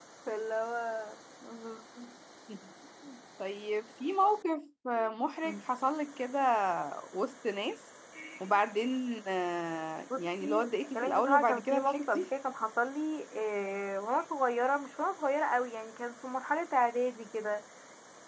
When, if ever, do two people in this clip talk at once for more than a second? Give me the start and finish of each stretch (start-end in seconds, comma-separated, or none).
10.9-12.2